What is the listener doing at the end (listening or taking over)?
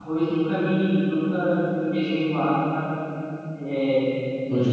listening